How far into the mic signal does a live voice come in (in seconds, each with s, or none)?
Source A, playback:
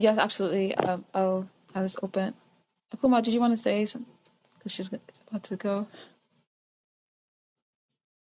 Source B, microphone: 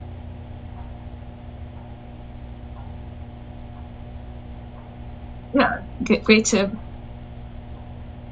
5.5 s